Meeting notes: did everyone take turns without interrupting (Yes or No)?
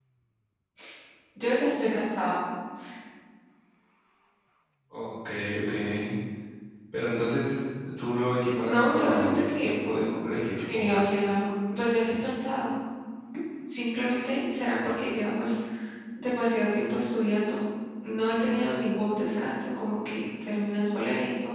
No